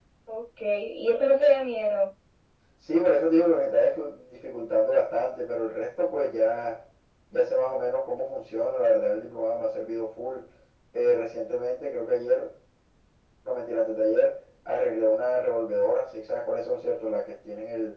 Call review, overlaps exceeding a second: none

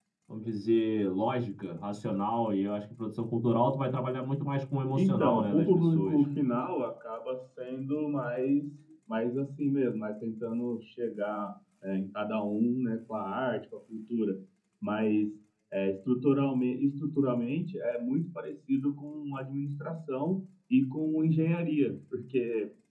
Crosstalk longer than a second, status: present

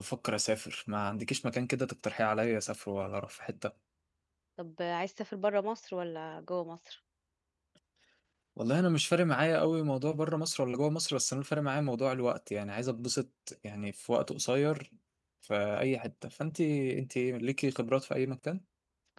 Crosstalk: none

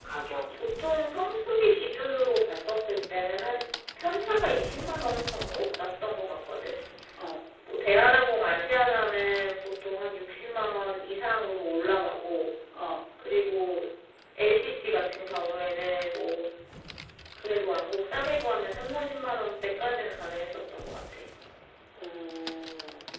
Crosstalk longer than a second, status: none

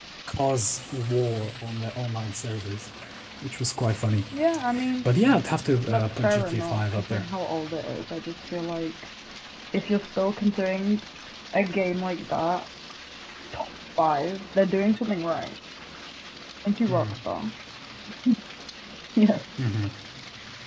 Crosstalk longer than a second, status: present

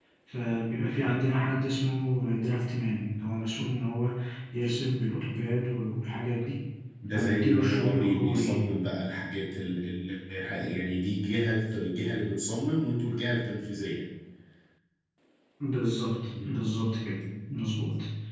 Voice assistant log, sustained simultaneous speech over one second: present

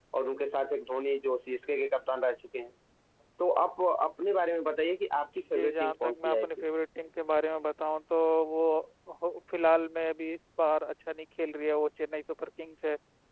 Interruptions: present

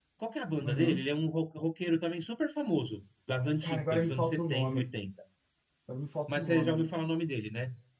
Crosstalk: present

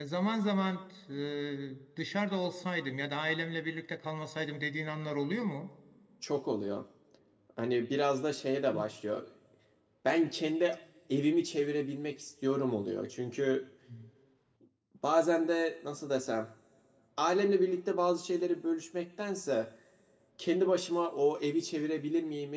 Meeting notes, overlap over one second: none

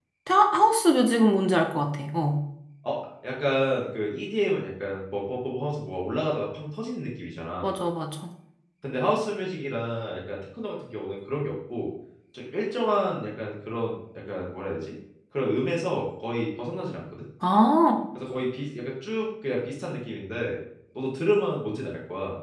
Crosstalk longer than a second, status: none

